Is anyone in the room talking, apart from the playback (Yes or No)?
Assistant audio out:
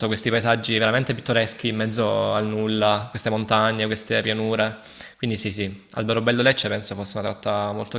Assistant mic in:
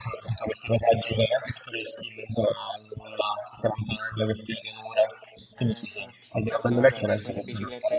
Yes